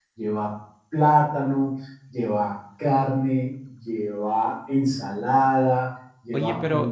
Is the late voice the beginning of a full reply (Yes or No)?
Yes